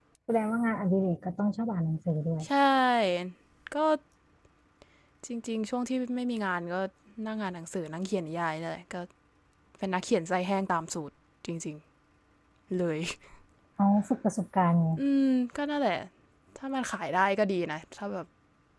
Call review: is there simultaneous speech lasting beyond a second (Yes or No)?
No